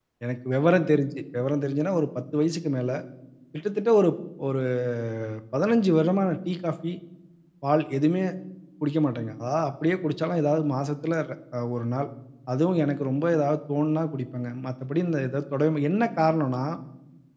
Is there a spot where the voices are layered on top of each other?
No

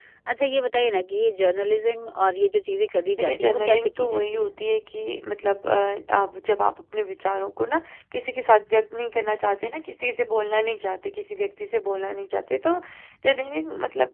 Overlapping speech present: Yes, from 3.2 s

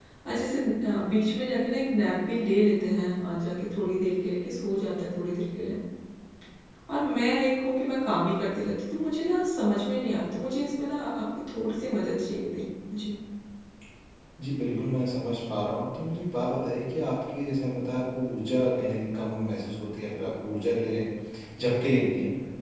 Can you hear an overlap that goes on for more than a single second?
No

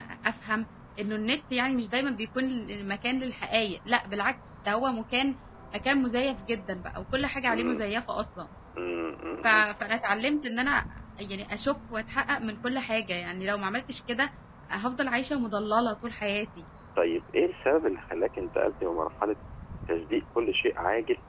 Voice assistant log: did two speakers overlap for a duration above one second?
No

